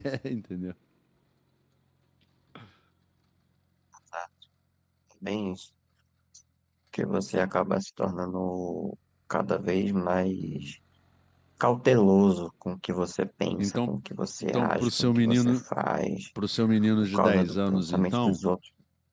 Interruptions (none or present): present